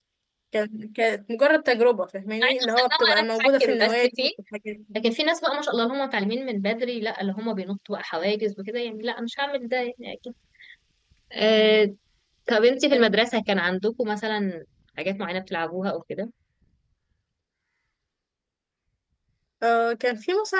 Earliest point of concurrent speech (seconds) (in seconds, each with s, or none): 2.4 s